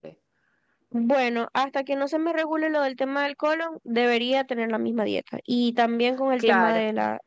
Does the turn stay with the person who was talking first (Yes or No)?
Yes